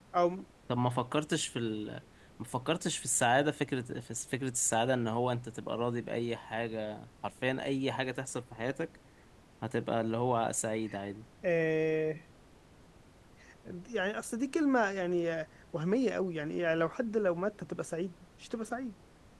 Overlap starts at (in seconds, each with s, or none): none